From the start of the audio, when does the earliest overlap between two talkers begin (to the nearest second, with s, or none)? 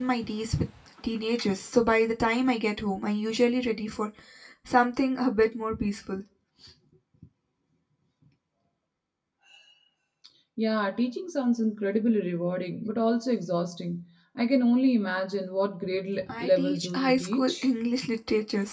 16 s